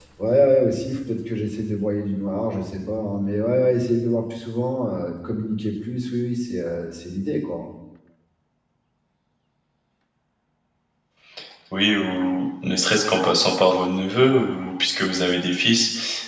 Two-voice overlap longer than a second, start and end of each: none

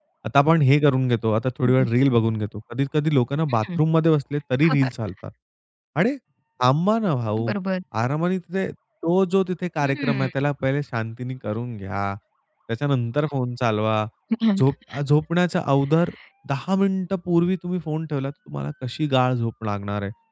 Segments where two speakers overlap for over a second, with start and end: none

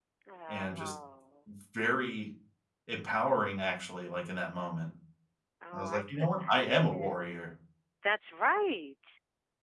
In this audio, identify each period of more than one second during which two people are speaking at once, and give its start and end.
5.7-7.4

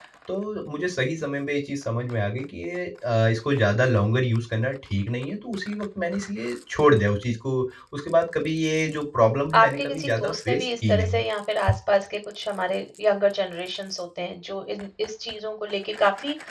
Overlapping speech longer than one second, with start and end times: 9.6-11.2

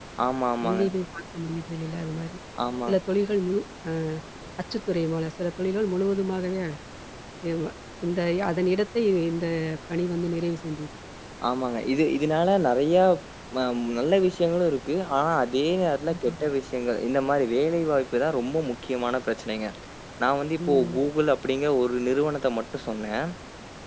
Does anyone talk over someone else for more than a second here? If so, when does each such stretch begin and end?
none

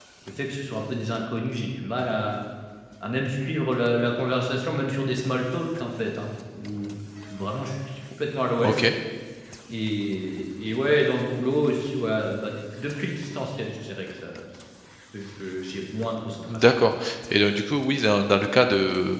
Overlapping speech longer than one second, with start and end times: none

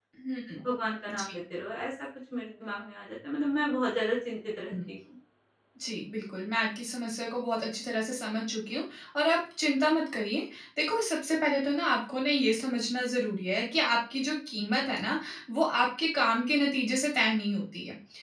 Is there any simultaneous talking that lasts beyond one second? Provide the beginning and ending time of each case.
none

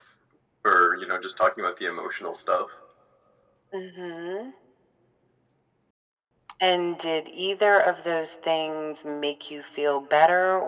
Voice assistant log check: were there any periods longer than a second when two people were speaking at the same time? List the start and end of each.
none

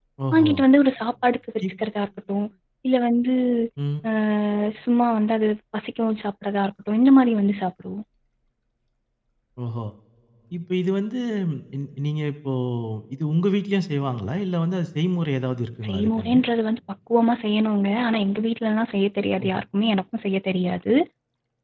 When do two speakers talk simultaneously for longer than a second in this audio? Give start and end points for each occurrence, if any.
none

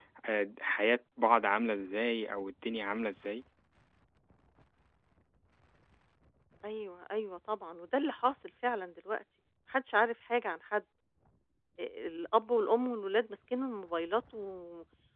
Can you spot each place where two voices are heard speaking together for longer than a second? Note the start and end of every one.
none

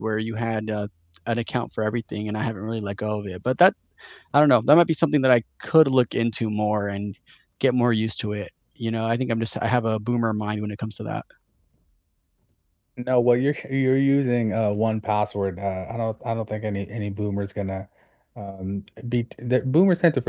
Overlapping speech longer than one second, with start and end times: none

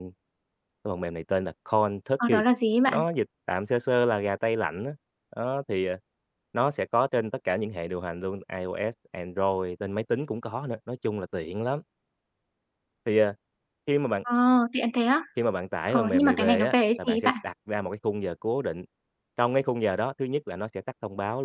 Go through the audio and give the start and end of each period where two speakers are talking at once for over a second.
15.9-17.3

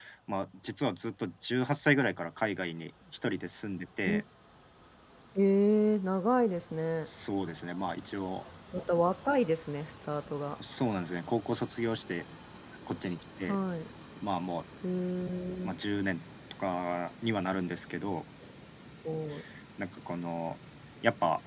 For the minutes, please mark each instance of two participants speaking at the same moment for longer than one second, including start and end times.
none

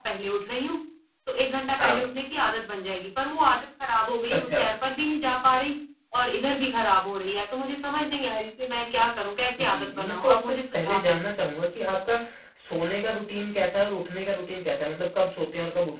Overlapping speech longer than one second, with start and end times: 9.7-11.4

